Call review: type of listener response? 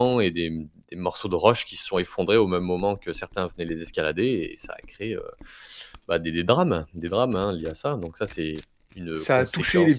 taking over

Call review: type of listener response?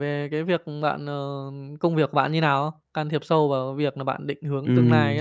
taking over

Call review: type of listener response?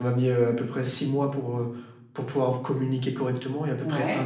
listening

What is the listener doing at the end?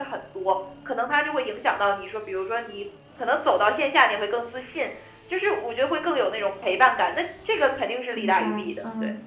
taking over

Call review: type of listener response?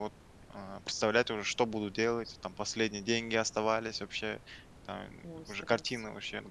listening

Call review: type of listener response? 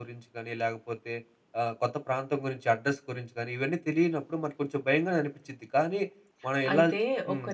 taking over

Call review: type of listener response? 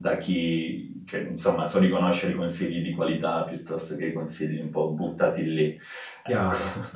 taking over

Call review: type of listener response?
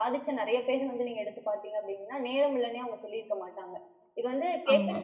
listening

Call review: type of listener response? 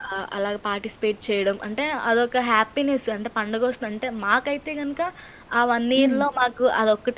listening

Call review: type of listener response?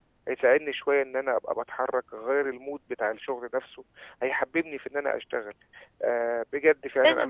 taking over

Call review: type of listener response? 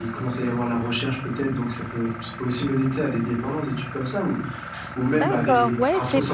taking over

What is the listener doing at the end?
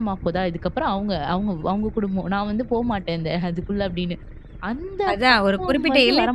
taking over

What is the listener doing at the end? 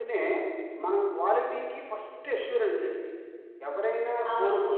listening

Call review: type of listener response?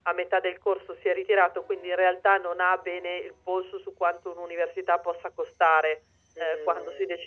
listening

